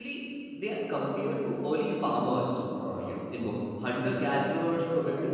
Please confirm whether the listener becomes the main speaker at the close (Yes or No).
No